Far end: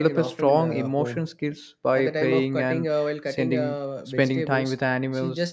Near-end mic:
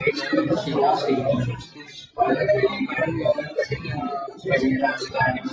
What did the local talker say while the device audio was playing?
He- She crossed eighty.

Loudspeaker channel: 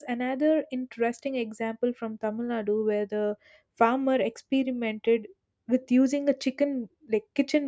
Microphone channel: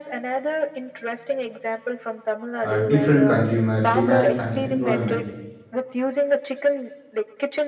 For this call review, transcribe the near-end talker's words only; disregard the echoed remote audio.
uh, different consumer demands and environment.

